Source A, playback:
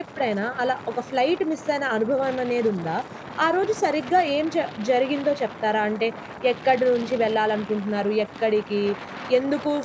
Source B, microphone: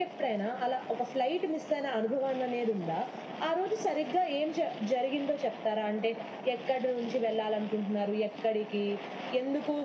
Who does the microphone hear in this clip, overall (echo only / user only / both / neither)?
echo only